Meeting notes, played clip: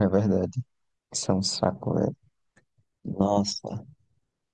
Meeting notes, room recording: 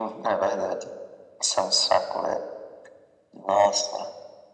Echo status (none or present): present